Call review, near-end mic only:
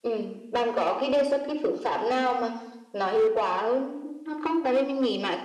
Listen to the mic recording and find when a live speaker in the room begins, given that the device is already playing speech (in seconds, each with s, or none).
none